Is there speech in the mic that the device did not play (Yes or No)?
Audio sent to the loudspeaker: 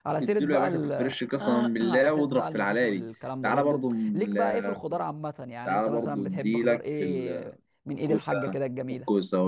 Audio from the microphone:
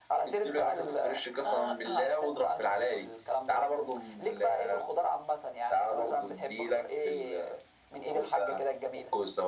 No